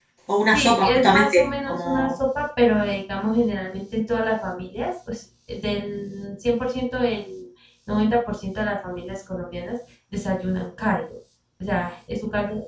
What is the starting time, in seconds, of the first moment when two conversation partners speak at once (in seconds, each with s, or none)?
0.5 s